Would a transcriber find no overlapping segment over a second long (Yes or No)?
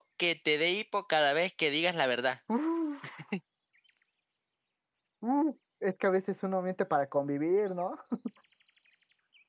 Yes